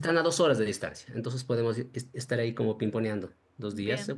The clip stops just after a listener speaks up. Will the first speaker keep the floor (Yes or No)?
Yes